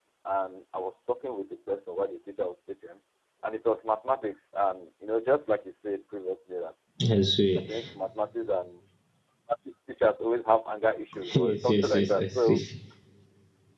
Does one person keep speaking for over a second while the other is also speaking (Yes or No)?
Yes